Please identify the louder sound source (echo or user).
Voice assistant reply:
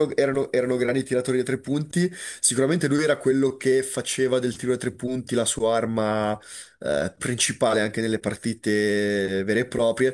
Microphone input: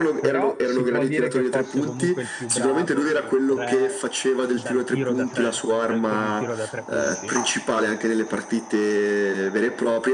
echo